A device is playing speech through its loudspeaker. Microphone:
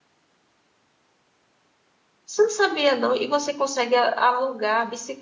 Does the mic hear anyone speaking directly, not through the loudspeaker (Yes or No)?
Yes